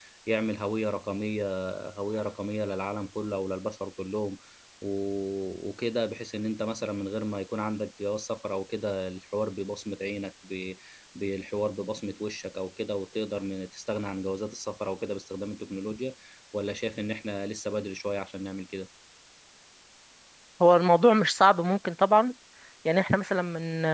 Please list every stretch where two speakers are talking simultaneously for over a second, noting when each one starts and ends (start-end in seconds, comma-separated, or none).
none